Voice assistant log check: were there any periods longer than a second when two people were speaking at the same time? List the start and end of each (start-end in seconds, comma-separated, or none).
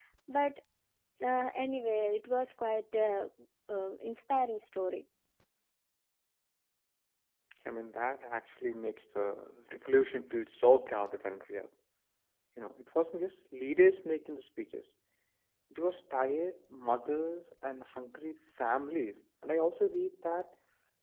none